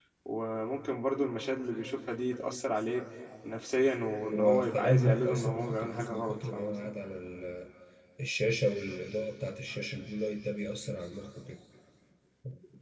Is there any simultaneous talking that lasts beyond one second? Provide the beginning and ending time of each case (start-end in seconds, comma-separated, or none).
4.2-6.9